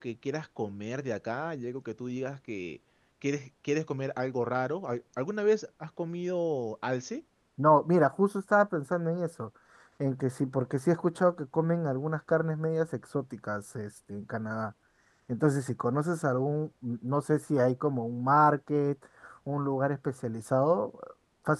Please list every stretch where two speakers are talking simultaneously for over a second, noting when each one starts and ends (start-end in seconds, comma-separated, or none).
none